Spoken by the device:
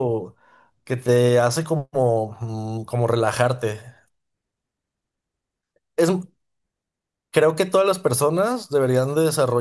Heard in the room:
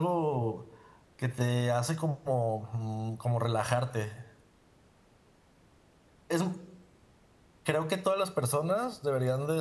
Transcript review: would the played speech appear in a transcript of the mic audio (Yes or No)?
Yes